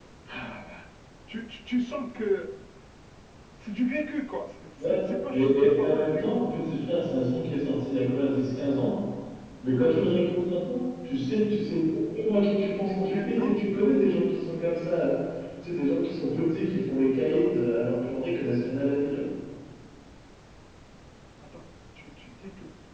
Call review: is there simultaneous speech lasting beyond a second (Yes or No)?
Yes